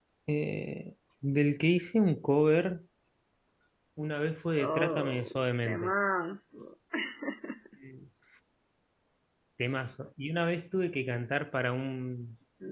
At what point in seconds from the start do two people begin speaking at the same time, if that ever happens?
4.6 s

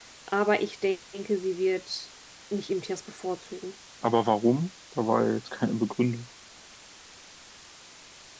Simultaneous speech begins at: none

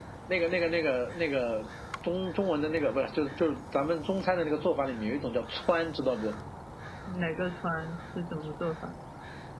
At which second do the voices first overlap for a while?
none

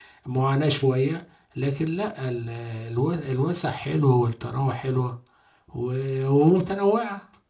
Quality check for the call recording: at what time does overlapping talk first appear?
none

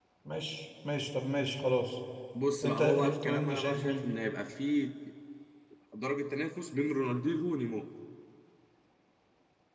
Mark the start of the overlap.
2.6 s

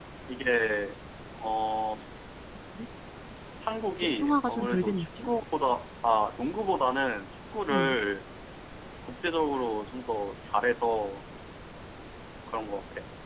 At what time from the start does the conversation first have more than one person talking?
4.0 s

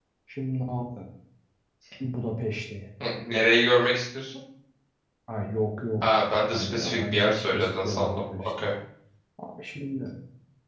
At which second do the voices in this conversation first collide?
6.5 s

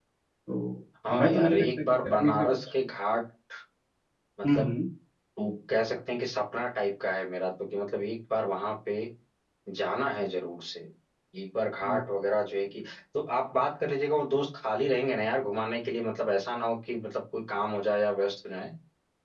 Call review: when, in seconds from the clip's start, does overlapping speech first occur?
1.1 s

